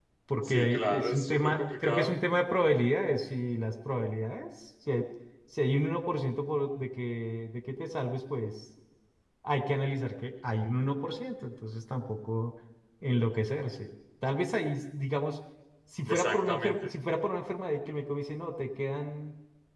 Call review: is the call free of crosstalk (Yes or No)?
No